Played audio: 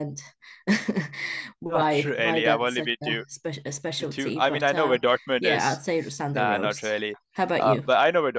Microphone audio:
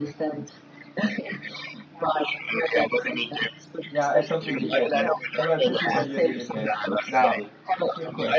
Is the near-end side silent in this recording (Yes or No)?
No